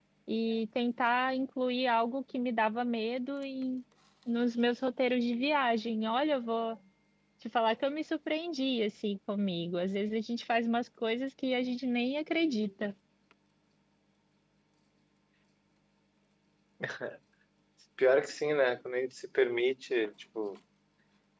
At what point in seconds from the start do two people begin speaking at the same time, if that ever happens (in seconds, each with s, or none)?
none